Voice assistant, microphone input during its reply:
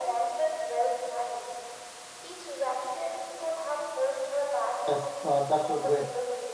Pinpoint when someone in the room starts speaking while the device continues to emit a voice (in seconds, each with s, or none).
4.9 s